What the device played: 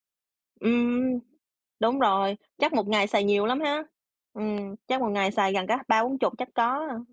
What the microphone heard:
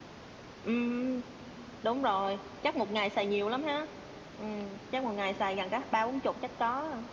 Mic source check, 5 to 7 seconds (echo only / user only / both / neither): echo only